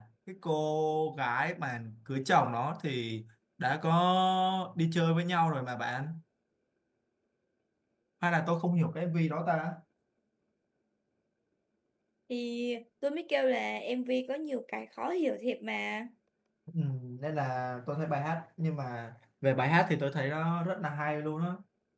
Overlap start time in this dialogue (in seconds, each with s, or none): none